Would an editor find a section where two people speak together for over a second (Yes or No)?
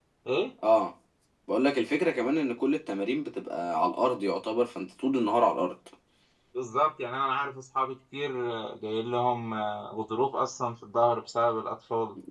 No